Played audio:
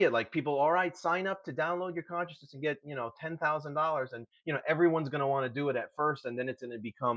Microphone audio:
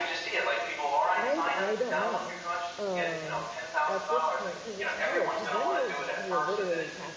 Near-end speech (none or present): present